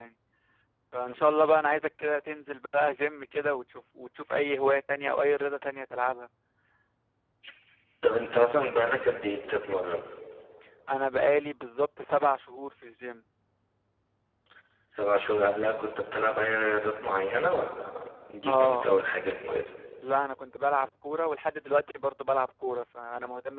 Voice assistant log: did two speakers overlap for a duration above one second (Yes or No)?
No